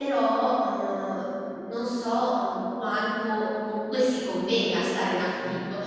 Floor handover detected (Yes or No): No